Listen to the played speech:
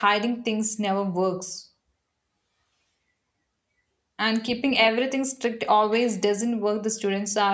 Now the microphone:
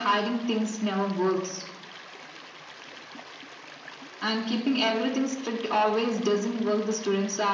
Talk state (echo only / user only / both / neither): echo only